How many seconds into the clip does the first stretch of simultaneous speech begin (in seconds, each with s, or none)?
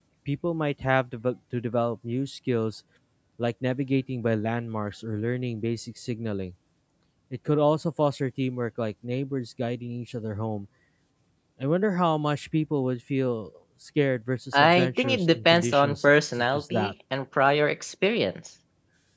14.5 s